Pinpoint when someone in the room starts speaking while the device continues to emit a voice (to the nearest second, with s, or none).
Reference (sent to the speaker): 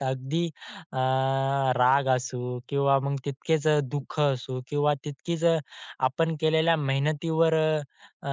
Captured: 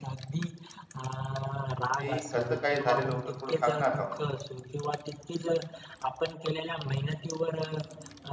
2 s